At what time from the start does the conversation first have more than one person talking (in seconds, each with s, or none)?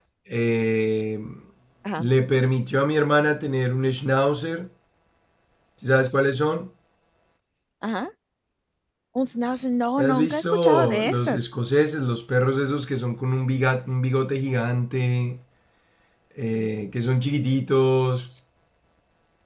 10.0 s